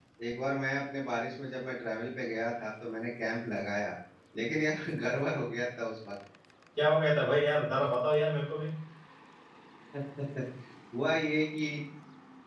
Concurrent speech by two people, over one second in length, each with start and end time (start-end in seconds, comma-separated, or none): none